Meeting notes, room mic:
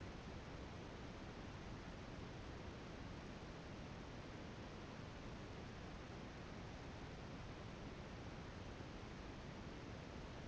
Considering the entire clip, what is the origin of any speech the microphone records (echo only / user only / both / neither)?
neither